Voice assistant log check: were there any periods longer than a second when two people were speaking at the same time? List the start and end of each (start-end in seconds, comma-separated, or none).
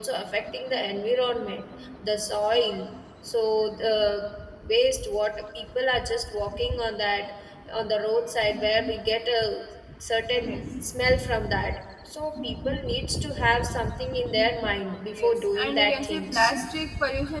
15.1-16.5